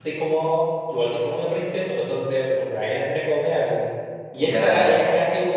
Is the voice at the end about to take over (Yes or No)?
No